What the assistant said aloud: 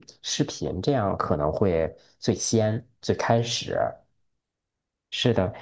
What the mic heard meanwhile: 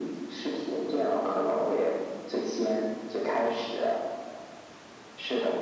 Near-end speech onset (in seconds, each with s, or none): none